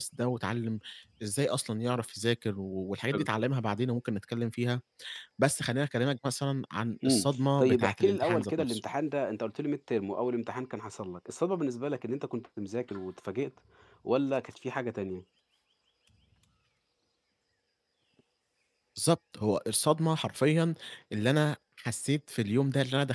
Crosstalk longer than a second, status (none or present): present